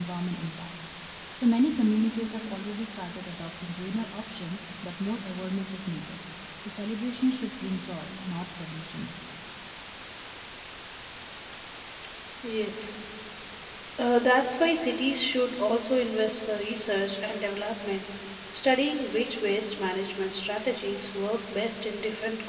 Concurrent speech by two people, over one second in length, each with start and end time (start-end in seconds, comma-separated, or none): none